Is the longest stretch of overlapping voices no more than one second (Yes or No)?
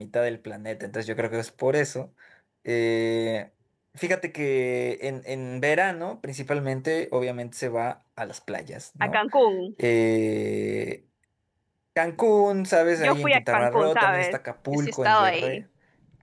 No